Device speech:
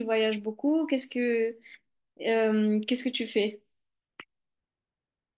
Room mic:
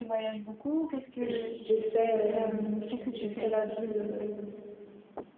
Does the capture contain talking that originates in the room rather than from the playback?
Yes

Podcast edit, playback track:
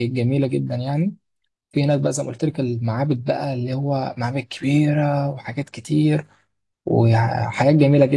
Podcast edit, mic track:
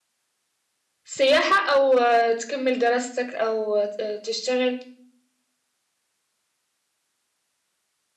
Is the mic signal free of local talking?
No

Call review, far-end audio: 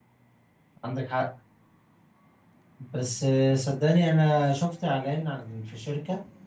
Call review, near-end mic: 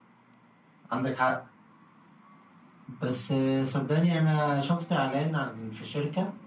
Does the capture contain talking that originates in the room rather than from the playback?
No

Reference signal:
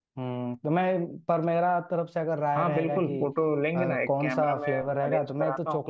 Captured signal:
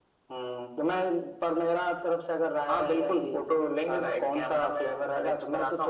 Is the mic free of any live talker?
Yes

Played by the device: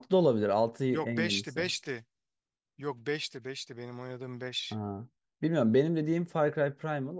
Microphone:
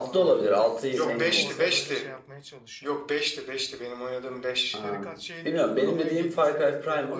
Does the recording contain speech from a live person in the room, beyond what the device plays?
Yes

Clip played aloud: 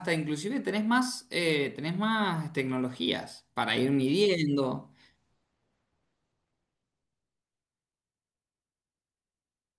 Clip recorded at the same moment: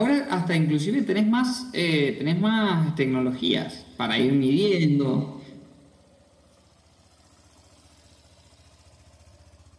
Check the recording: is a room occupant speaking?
No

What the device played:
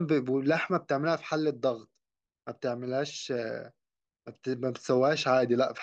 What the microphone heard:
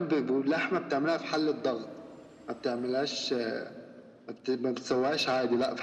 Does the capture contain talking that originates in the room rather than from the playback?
No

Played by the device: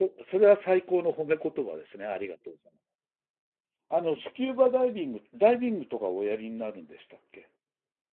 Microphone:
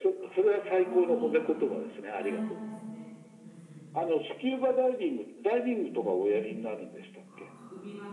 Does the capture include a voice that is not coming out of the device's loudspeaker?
Yes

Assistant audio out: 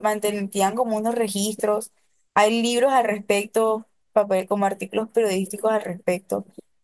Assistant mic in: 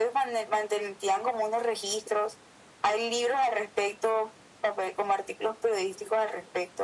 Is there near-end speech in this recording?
No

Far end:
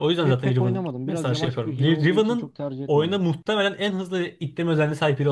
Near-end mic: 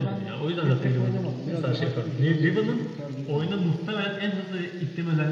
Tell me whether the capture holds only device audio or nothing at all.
Yes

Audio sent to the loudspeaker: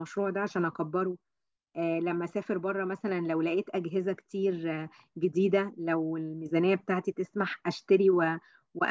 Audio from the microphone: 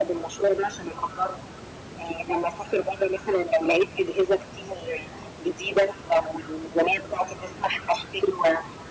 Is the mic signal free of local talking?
Yes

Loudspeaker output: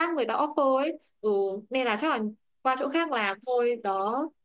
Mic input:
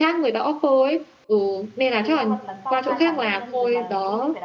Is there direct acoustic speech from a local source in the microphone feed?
Yes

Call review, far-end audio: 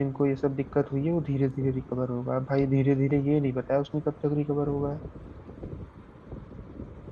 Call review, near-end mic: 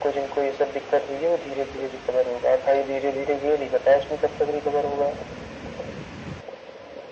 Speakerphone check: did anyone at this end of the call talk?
No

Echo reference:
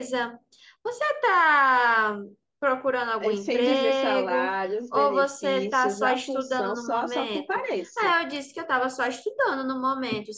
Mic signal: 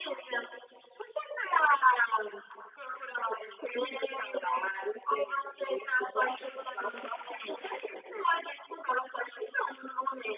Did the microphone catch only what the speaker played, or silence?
Yes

